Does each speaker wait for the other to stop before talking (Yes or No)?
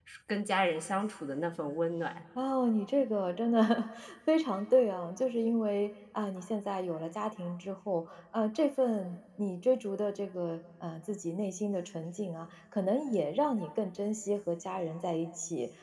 Yes